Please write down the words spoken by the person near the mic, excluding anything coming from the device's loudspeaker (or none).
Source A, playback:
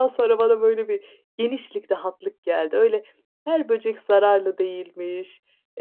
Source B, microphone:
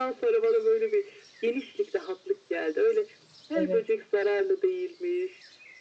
Evet.